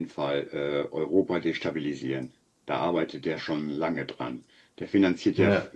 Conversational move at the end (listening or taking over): listening